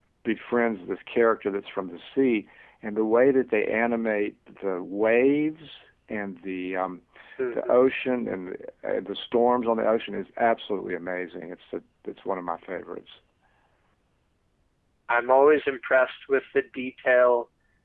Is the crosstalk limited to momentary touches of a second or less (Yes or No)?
Yes